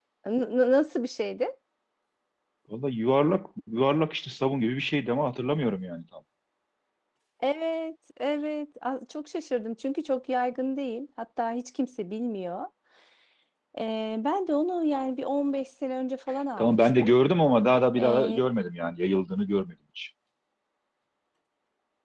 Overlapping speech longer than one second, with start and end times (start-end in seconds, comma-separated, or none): none